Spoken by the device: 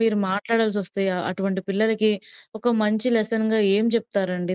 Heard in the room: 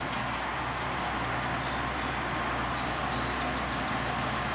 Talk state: neither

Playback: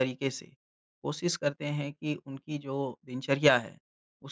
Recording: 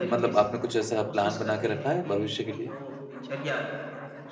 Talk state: both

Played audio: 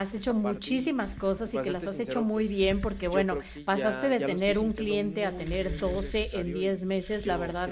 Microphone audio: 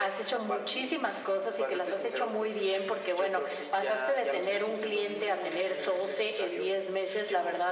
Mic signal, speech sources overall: echo only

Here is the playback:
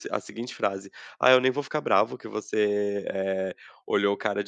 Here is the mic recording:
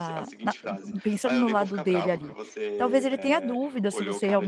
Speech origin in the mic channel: both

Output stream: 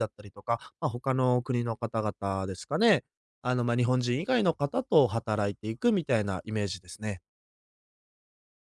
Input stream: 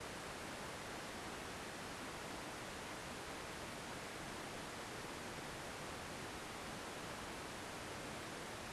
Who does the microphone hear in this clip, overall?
neither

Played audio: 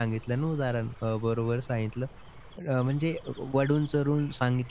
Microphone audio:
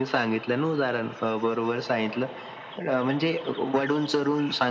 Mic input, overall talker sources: echo only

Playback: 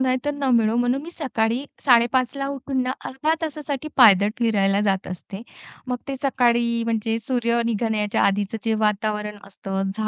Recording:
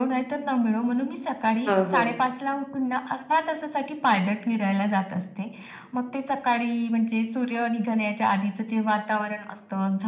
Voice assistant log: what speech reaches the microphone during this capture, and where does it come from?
both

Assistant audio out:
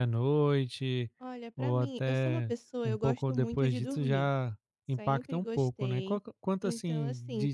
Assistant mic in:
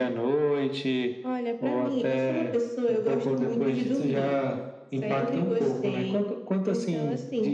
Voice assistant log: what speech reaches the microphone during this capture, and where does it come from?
echo only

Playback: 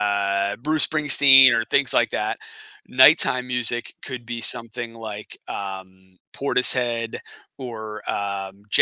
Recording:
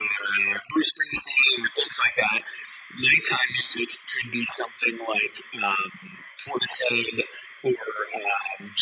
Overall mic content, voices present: echo only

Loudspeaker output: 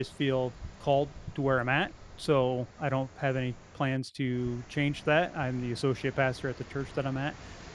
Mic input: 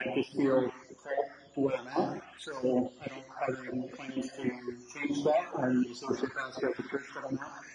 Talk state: echo only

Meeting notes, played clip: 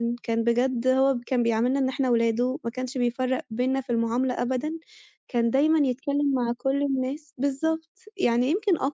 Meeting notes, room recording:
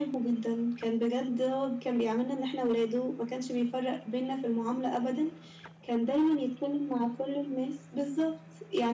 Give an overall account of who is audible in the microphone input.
echo only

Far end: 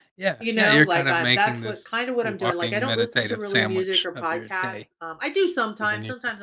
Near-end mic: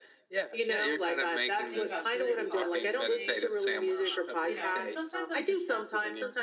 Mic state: both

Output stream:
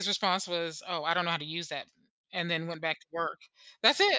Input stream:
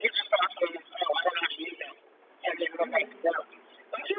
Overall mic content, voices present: both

